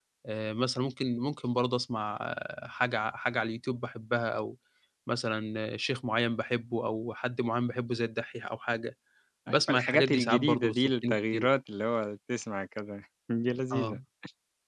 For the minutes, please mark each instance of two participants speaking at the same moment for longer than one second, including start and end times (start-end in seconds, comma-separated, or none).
9.5-11.5